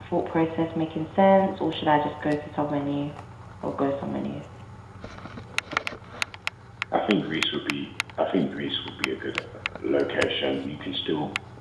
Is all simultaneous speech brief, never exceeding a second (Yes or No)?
Yes